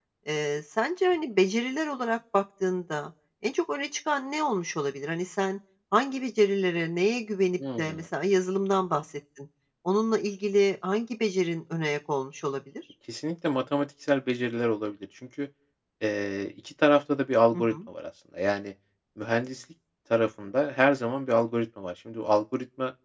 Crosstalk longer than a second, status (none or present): none